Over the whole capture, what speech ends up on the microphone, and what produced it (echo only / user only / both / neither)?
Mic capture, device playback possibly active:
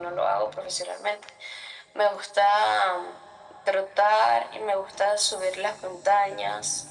echo only